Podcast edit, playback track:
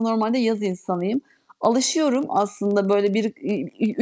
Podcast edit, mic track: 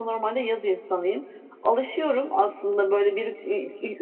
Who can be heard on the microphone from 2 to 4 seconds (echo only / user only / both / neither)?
echo only